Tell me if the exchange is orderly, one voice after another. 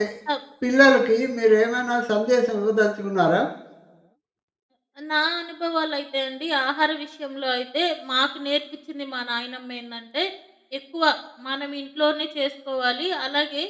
Yes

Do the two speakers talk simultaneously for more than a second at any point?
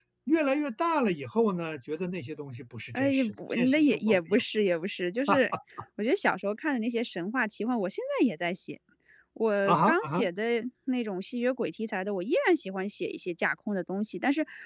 Yes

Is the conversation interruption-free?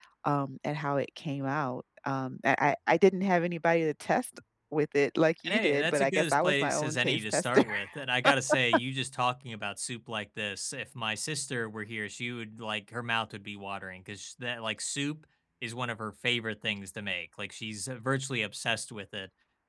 No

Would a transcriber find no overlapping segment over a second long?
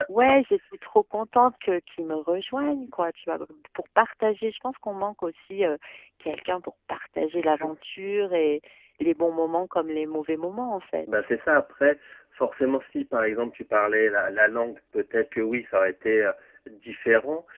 Yes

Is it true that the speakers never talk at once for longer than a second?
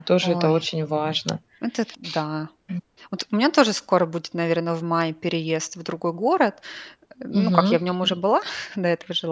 Yes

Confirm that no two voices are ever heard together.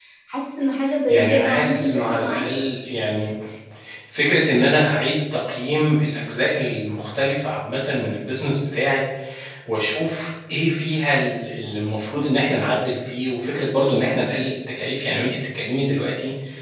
No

